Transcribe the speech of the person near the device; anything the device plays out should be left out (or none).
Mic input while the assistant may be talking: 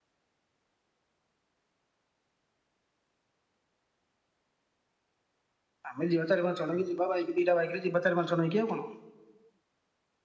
ଆମେ ଯିବା ଚାରି ପାଞ୍ଚ ଜଣକ ଯିବା ବାଇକ୍ ଦିଟା ବାଇକ୍ ରେ ଯିବା ଚାର ପାଞ୍ଚ ଜଣ ହେଇକି ଆଉ କଣ।